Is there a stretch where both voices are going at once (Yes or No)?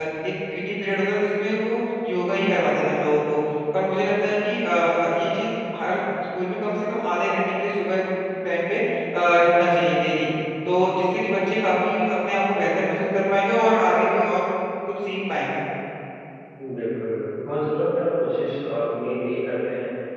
No